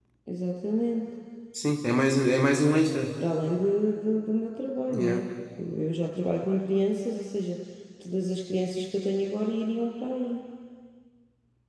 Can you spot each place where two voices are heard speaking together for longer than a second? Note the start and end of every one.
none

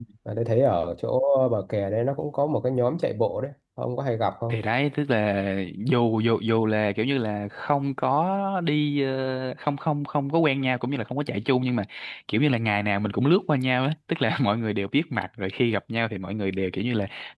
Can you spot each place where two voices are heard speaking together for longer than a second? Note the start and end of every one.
none

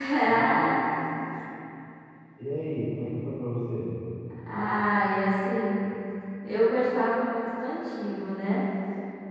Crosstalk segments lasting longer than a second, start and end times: none

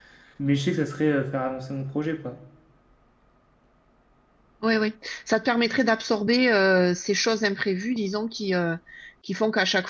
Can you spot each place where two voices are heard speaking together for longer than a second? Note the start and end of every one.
none

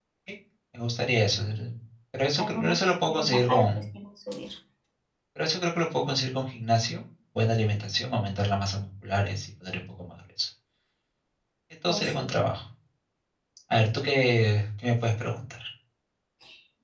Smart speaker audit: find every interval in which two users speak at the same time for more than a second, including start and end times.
2.4-3.8

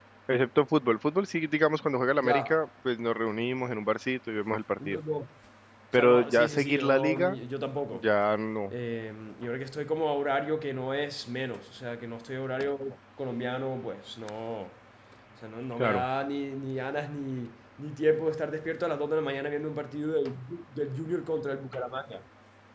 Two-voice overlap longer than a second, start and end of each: 6.0-7.4

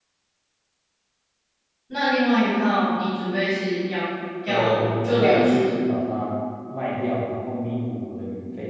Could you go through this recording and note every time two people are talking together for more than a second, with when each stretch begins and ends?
4.5-5.7

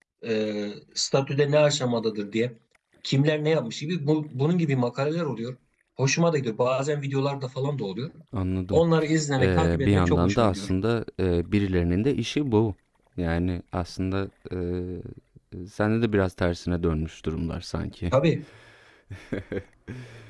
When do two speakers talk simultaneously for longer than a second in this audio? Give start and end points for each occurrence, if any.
9.4-10.7

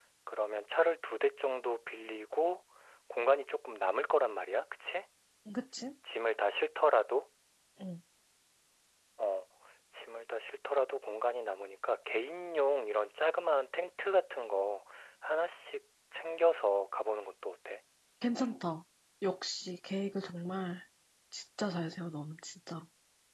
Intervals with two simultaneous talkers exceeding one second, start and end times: none

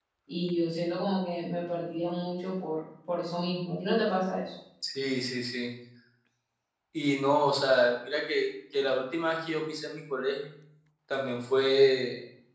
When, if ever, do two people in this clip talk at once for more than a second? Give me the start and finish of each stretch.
none

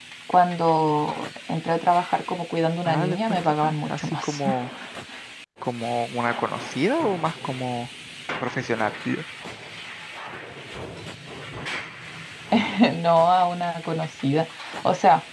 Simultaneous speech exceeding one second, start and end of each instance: 2.8-4.4

